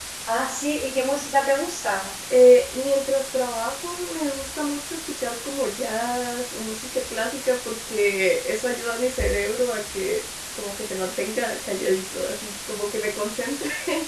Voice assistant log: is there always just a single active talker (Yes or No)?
Yes